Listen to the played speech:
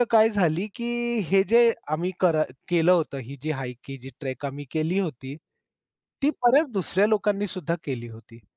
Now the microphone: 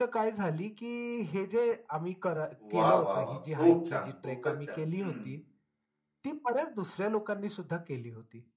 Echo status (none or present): present